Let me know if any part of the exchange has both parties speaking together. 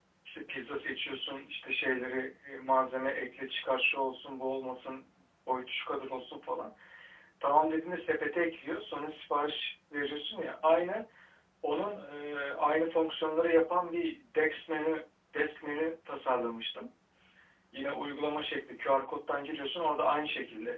No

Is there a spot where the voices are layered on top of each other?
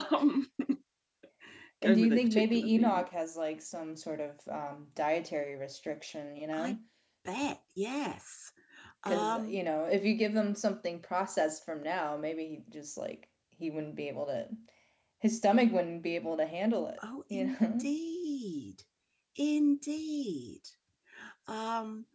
Yes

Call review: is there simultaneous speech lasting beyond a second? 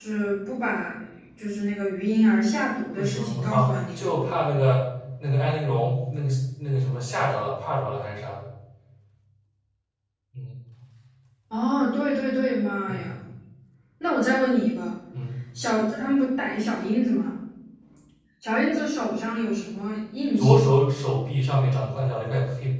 Yes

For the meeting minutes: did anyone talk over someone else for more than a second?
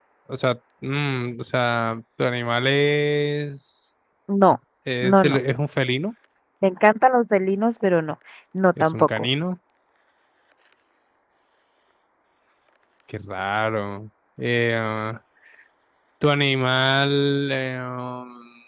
No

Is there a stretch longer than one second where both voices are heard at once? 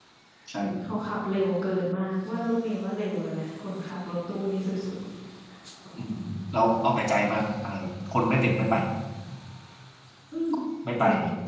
No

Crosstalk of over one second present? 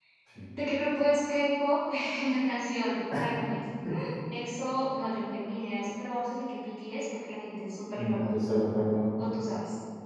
No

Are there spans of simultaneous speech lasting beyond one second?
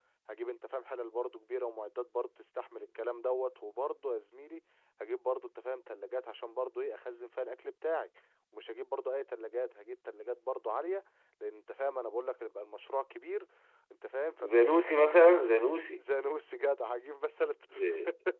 No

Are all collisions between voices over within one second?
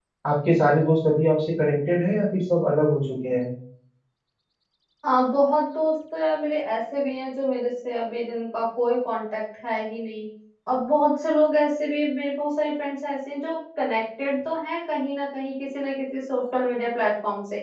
Yes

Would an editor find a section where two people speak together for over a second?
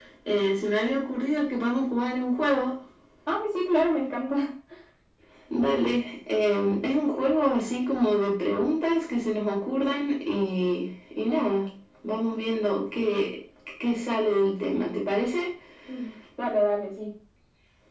No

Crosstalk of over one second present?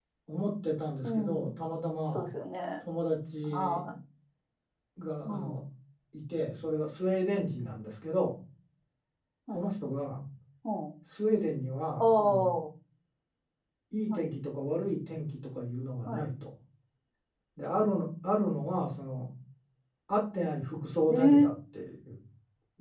No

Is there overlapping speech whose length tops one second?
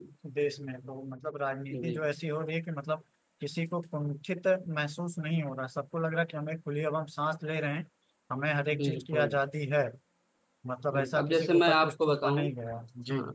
Yes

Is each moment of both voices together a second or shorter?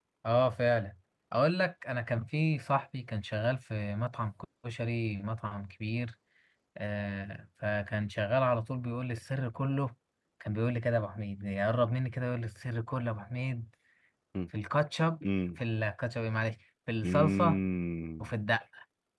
Yes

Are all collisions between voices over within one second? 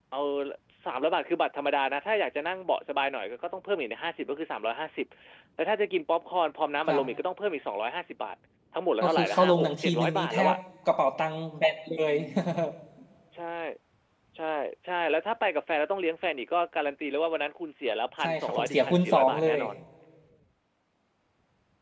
No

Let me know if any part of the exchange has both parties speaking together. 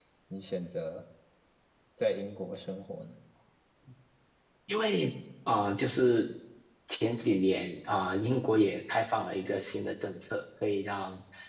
No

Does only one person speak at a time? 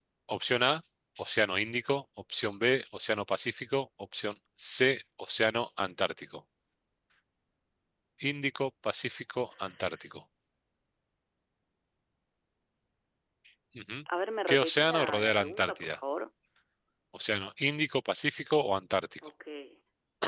No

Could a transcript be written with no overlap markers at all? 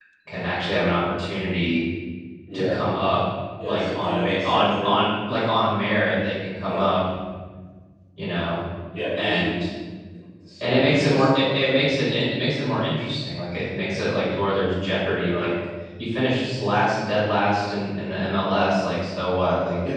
No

